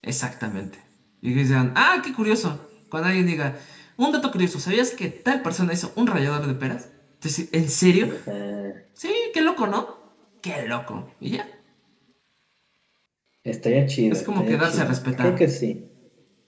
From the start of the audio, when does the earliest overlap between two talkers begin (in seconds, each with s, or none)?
14.1 s